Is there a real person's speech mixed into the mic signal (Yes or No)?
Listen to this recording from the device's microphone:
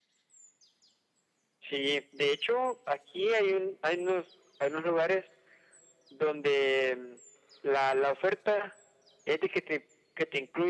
No